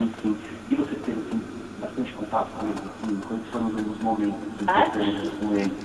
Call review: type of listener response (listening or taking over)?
taking over